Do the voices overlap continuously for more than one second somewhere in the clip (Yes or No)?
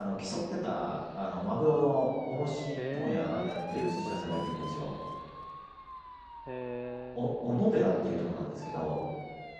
Yes